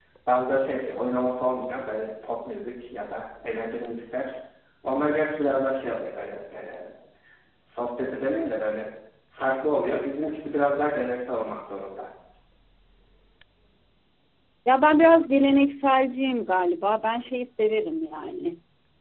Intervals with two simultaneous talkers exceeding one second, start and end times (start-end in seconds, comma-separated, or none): none